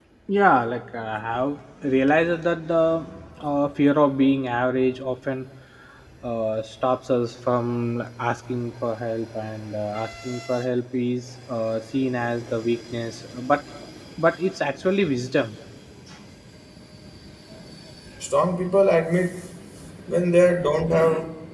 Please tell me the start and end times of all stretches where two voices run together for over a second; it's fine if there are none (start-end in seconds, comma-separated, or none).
none